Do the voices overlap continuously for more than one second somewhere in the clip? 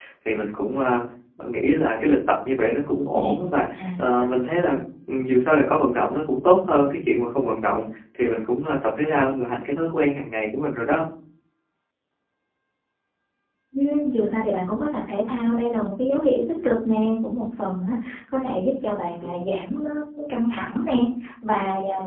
No

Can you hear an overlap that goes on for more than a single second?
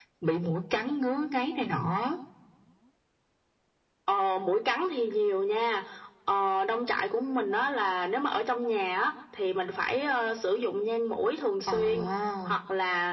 No

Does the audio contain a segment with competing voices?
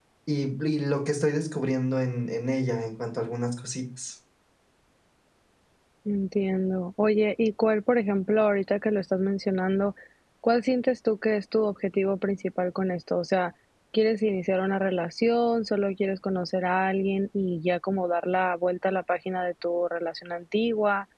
No

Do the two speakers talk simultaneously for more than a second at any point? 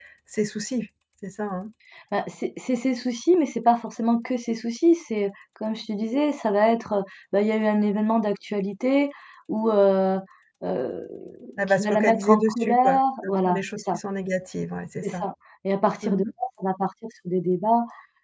Yes, from 11.7 s

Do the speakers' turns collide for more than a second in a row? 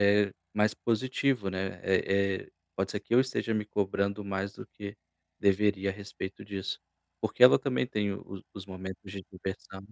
No

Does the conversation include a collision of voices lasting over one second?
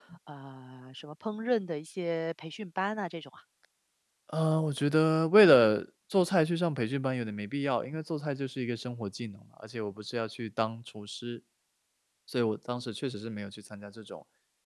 No

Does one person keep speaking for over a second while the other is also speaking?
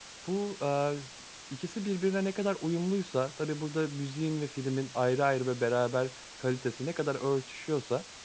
No

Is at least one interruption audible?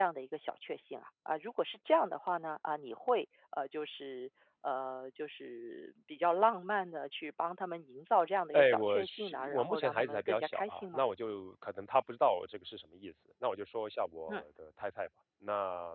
Yes, from 8.5 s

